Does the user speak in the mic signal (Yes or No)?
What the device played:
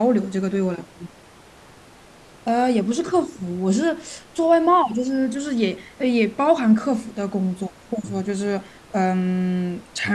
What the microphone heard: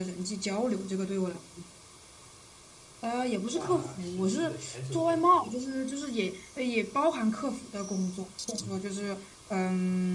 Yes